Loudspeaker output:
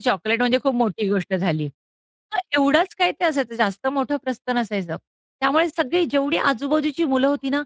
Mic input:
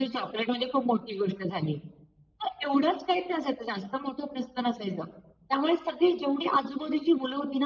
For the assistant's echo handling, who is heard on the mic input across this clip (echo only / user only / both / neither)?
echo only